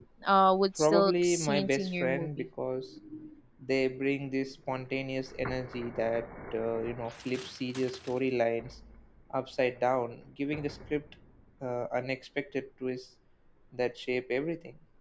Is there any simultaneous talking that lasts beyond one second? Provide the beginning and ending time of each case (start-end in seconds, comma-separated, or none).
0.8-2.5